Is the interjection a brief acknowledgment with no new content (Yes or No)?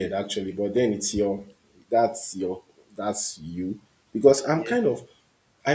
Yes